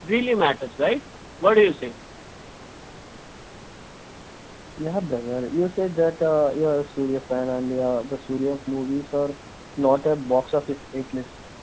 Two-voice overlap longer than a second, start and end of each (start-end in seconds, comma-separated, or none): none